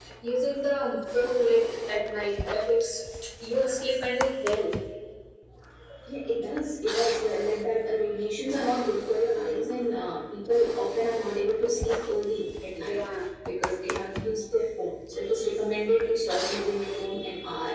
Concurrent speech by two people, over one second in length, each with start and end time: none

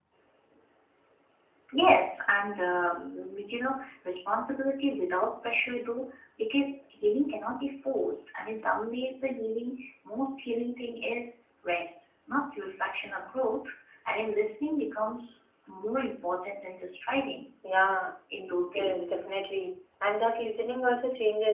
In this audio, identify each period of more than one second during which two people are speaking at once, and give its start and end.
none

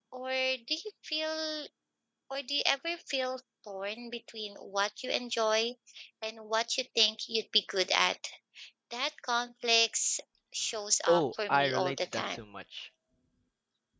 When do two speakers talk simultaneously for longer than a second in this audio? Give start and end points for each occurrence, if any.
11.1-12.4

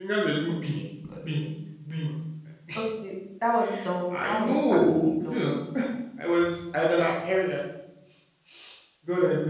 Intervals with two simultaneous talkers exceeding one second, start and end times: 4.1-5.5

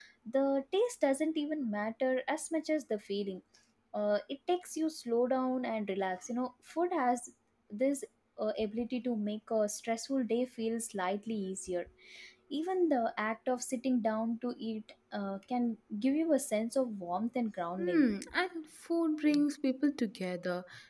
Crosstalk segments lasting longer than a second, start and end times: none

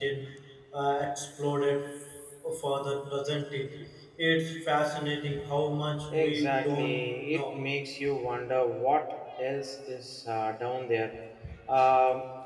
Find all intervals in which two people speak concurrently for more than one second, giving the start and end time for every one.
6.1-7.6

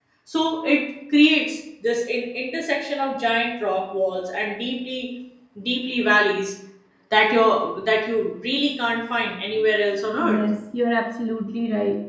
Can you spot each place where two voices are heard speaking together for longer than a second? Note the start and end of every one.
none

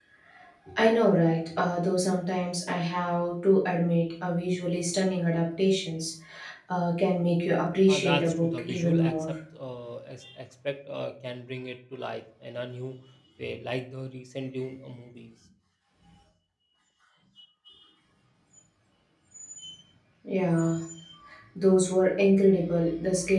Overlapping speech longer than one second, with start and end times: 7.9-9.3

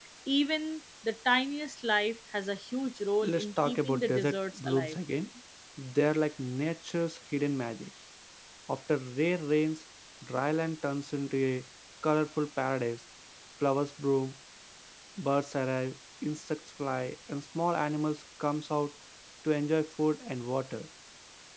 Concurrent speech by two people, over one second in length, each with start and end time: 3.2-5.0

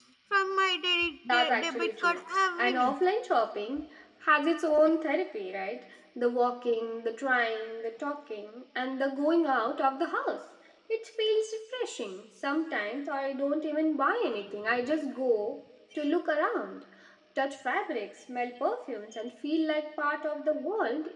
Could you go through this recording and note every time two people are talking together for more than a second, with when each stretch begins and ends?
1.3-2.9

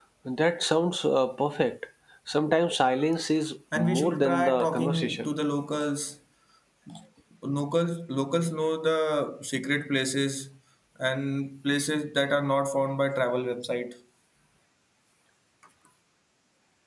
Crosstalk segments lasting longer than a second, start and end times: 3.8-5.3

